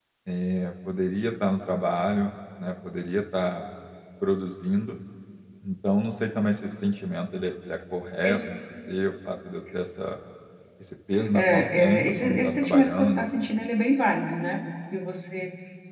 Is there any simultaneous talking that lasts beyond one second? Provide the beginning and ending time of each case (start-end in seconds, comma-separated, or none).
11.3-13.3